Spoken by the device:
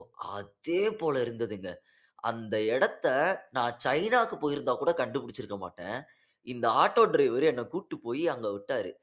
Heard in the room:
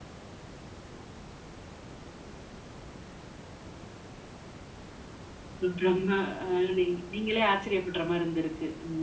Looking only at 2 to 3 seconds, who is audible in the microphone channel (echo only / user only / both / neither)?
neither